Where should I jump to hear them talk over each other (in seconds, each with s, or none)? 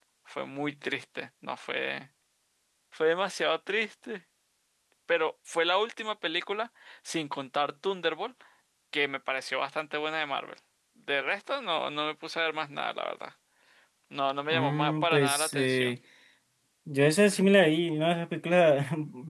14.5 s